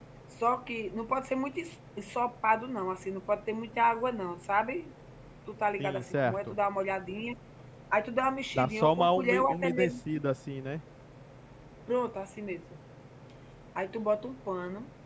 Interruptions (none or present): present